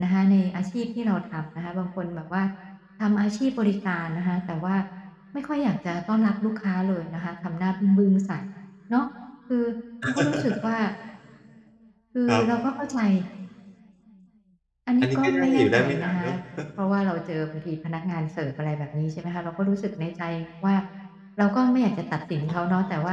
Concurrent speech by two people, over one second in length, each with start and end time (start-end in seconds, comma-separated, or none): 15.0-16.3